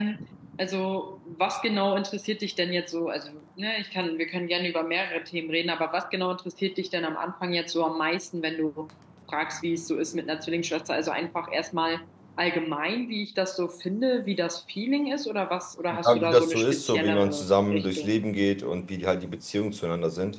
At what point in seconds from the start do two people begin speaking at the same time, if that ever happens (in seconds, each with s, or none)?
15.9 s